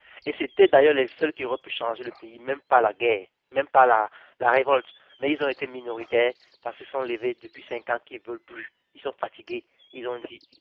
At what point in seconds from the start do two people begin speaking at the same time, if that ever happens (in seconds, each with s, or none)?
none